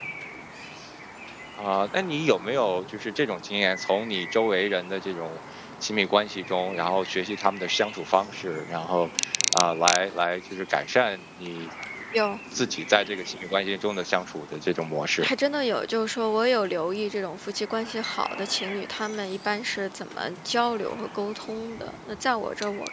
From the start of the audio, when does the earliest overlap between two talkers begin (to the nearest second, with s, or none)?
none